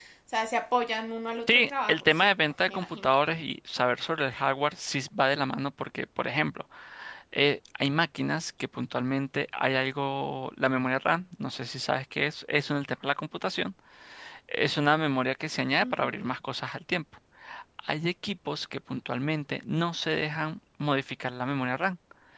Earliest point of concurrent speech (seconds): 1.5 s

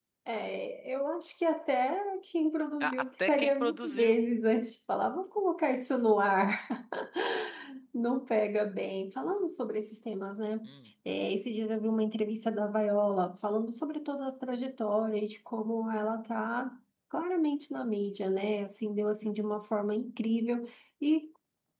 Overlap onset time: 2.8 s

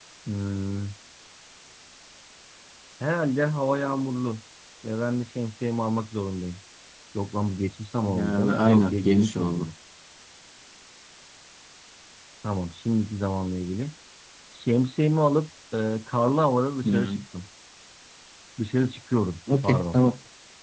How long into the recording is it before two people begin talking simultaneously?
8.1 s

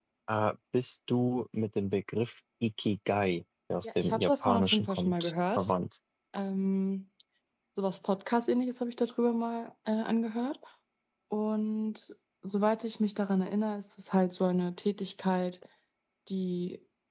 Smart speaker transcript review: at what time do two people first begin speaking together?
3.8 s

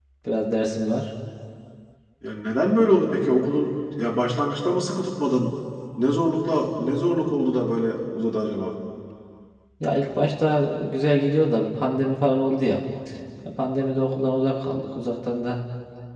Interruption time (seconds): none

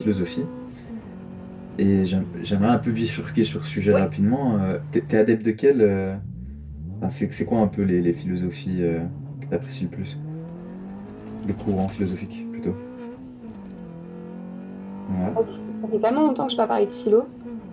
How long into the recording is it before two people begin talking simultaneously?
none

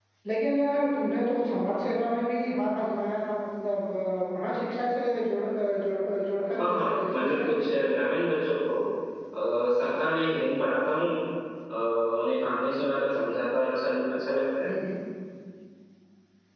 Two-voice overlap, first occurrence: 6.5 s

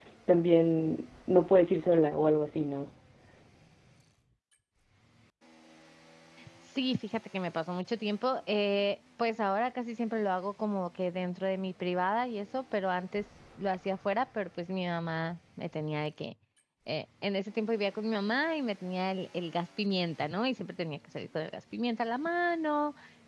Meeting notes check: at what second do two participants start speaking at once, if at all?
none

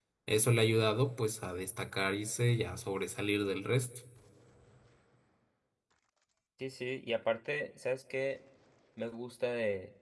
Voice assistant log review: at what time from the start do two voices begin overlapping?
none

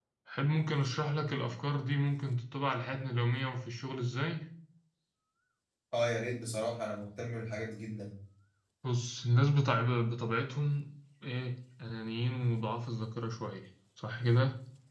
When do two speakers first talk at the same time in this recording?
none

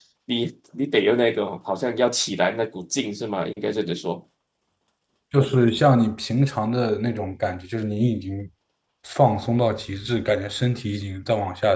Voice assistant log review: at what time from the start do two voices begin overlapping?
none

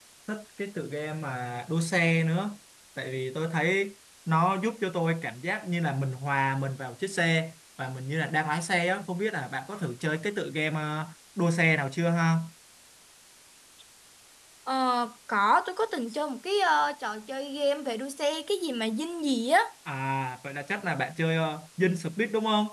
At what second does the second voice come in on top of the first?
none

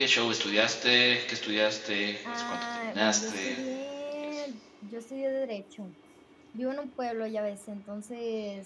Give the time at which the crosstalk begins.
2.3 s

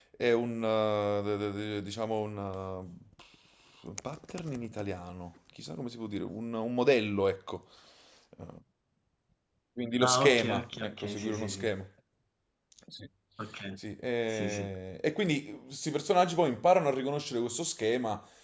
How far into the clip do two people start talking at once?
10.0 s

